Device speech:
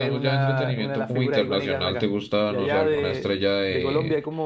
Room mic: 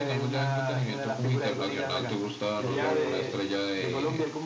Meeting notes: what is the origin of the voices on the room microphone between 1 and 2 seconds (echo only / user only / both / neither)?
echo only